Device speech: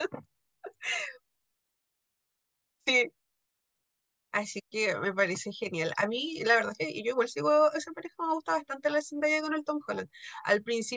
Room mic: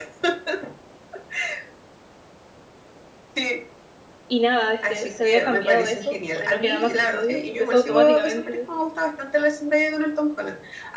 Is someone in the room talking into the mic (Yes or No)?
Yes